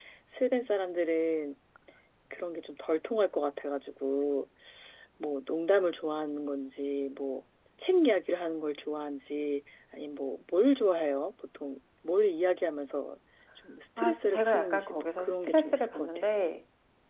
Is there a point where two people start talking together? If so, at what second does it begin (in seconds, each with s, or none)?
14.0 s